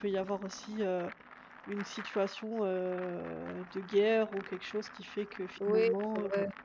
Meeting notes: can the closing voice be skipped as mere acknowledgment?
No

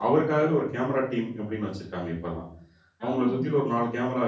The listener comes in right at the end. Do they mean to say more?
No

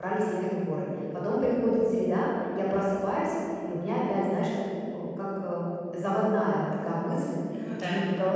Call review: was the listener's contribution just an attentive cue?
Yes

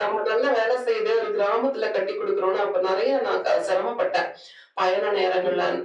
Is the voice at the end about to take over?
No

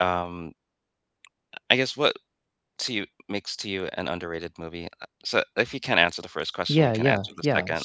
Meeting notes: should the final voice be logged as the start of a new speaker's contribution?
Yes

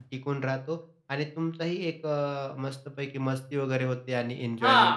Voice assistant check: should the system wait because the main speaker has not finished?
No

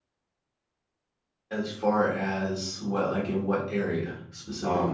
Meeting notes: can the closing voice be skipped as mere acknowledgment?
No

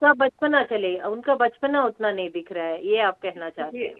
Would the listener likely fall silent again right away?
No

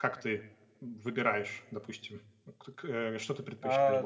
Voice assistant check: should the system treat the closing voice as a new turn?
Yes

